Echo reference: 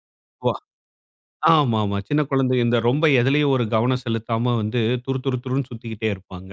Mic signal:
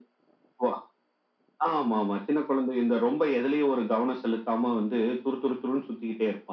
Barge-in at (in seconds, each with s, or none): none